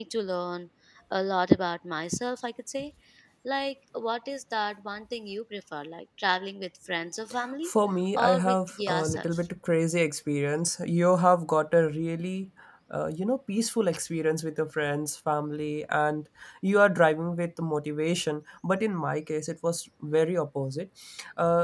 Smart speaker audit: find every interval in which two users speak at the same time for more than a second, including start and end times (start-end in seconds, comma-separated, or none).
8.2-9.4